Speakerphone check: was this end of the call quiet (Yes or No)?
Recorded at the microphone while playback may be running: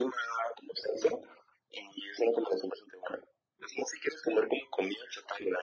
Yes